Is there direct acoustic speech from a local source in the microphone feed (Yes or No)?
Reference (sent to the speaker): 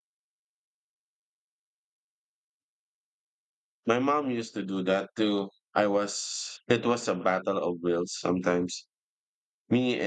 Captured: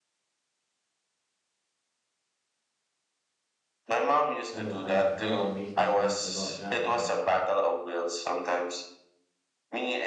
Yes